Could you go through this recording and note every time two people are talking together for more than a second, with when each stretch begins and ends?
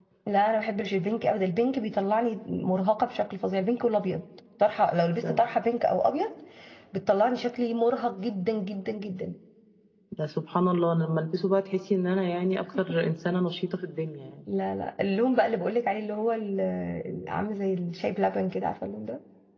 none

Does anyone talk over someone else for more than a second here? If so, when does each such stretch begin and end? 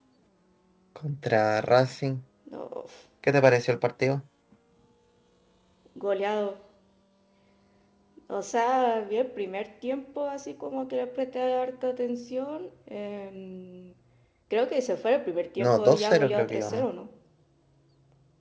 15.6-16.9

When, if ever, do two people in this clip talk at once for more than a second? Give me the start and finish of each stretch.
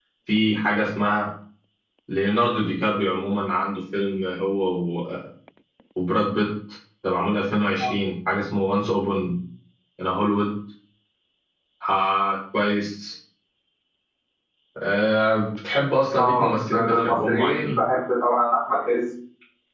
16.1-17.8

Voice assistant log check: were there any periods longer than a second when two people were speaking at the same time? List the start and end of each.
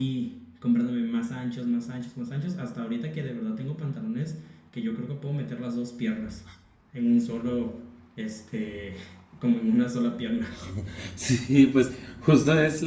none

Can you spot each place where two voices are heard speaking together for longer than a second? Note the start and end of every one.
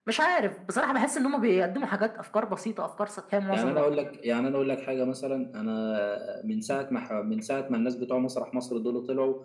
none

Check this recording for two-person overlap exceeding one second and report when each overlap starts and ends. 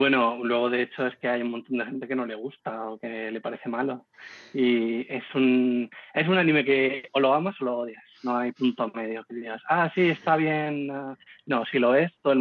none

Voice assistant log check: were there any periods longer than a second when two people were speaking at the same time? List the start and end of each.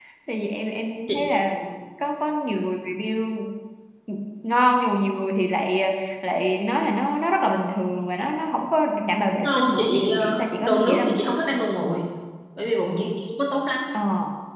9.4-11.2

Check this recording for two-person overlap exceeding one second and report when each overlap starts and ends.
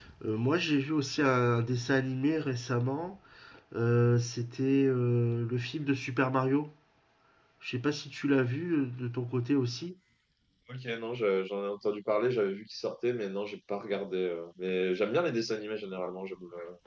none

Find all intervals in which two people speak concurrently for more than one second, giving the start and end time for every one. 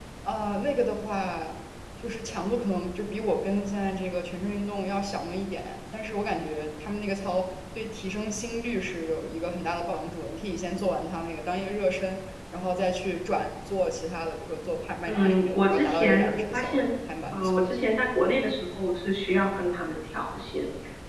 15.1-16.9

